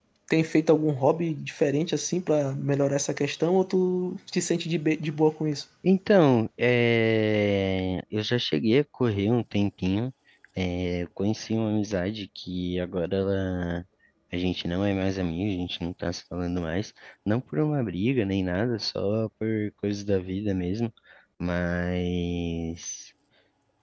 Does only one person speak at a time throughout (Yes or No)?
Yes